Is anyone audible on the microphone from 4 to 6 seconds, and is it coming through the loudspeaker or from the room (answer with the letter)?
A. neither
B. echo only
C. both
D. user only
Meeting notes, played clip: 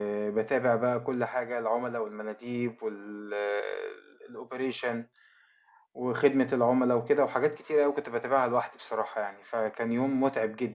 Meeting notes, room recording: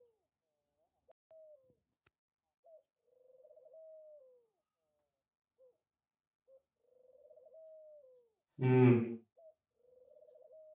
A